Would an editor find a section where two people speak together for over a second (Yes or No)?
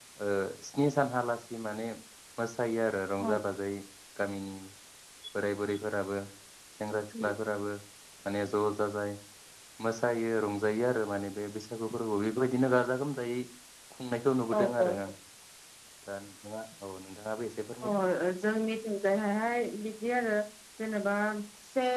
No